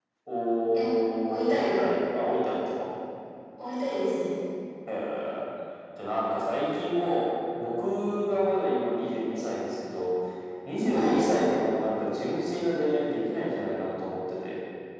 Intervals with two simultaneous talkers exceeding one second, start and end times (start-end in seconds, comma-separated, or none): 0.6-1.8